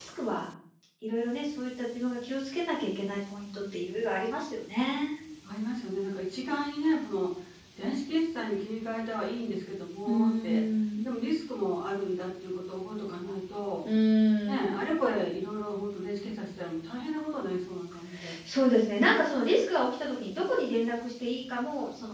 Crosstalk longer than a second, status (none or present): none